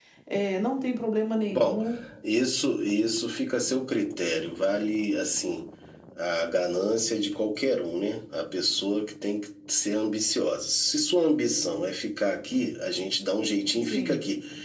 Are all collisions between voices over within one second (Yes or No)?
Yes